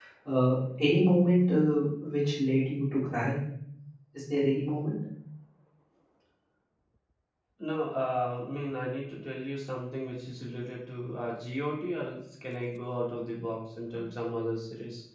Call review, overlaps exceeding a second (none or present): none